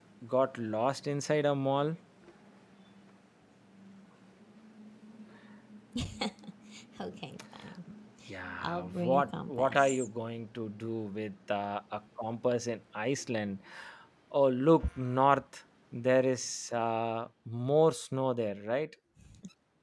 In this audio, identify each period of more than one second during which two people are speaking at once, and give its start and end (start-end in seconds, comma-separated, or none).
8.6-10.1